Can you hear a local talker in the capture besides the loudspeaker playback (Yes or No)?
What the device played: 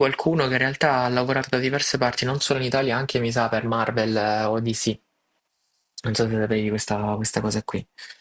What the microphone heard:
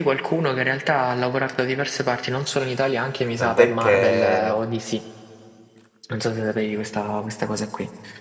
Yes